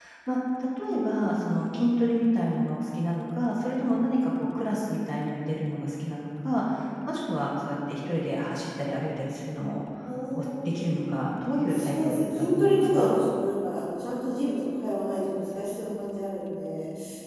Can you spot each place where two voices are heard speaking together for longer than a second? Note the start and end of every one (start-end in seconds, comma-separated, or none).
11.7-13.1